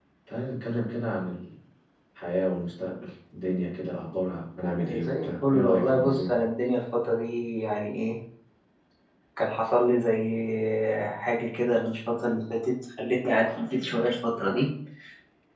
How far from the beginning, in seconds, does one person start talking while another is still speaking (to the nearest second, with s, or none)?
5 s